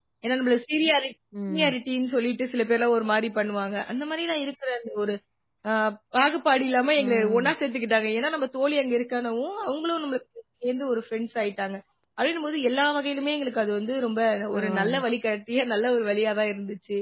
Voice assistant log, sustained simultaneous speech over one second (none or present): none